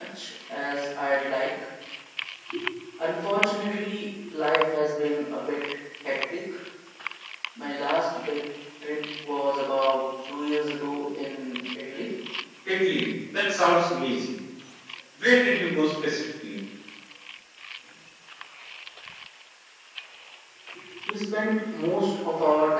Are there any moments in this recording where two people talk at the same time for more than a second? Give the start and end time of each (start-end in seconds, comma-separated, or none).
none